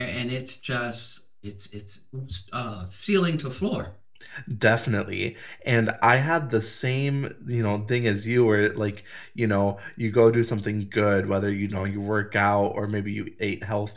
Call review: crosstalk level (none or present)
none